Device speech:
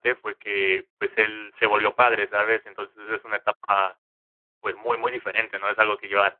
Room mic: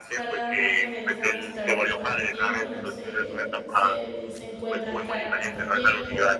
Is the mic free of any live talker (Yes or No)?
No